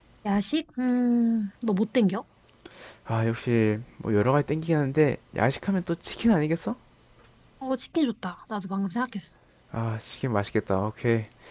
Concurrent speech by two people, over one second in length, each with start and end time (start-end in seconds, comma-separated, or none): none